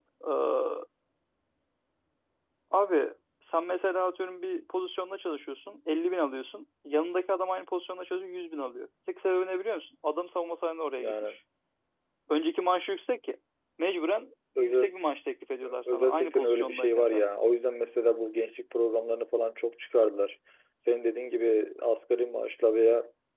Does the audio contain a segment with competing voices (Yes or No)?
Yes